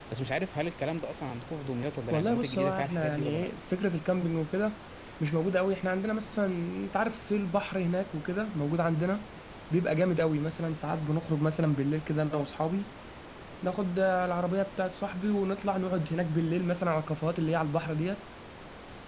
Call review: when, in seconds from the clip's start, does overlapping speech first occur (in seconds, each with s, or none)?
2.1 s